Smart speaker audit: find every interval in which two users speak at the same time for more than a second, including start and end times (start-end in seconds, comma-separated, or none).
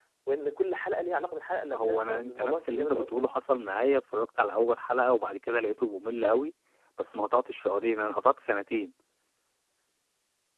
1.7-3.1